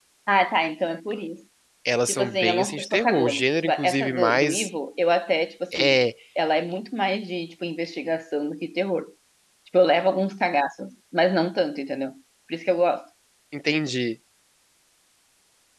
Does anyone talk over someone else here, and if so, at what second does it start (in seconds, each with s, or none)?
2.1 s